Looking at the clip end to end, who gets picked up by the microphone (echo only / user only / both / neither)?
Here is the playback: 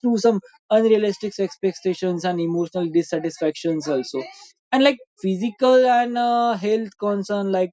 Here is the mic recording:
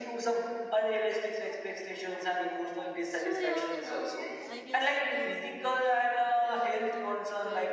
both